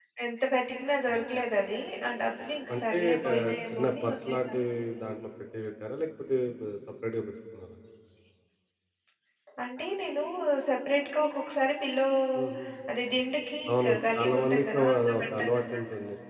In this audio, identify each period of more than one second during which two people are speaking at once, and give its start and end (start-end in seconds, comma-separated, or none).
2.7-4.6, 13.7-15.8